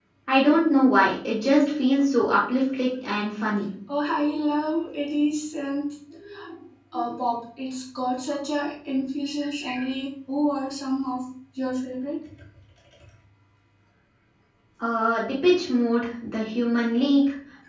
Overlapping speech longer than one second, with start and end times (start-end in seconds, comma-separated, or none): none